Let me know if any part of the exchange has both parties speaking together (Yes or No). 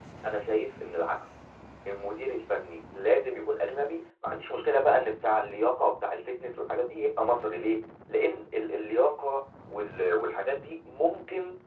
No